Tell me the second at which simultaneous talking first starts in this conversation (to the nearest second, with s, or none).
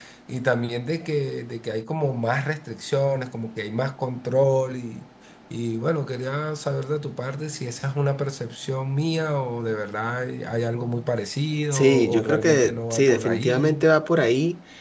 12 s